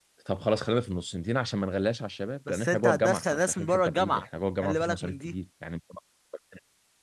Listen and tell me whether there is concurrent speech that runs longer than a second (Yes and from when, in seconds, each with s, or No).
Yes, from 2.5 s